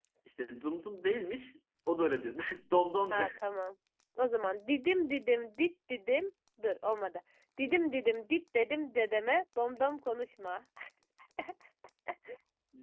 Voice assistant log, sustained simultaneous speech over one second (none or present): none